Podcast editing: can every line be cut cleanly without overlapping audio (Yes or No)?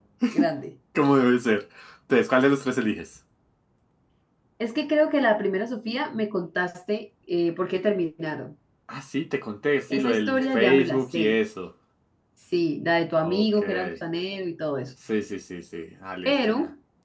No